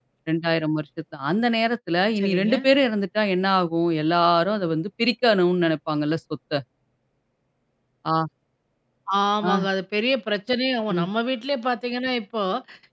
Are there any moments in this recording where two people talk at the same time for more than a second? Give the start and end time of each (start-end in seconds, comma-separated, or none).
none